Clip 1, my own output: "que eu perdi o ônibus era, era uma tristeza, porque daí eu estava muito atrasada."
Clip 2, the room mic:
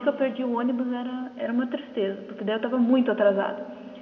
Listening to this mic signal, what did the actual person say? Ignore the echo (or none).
none